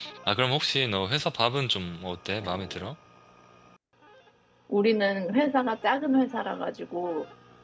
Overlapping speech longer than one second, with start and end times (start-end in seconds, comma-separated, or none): none